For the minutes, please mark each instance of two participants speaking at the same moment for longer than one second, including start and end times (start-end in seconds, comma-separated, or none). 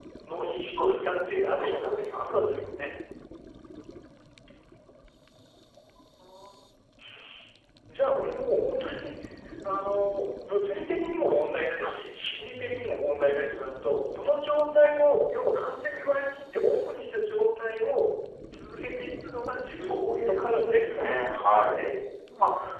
0.8-2.9, 19.8-21.9